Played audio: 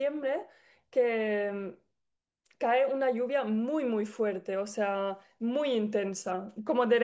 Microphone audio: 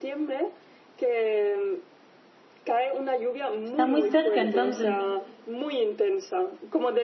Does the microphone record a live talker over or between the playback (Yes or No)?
Yes